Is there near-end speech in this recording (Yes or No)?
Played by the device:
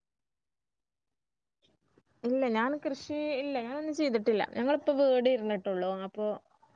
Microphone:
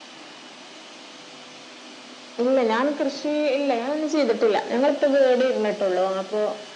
No